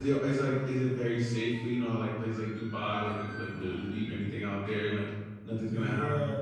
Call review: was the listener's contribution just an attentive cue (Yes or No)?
No